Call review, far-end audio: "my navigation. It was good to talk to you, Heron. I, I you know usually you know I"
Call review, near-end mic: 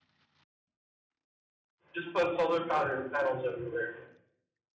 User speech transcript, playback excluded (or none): just put solar panel panels everywhere